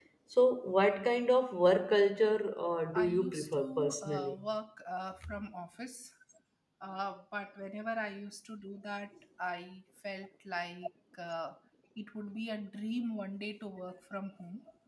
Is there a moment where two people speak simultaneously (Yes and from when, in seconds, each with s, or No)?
Yes, from 2.9 s